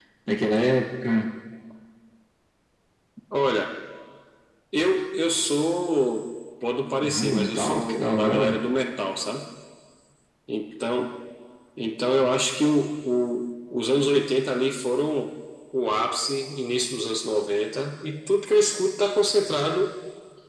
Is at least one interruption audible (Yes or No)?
Yes